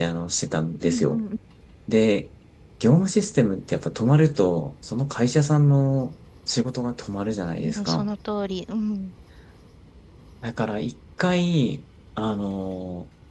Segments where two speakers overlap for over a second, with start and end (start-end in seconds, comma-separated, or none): none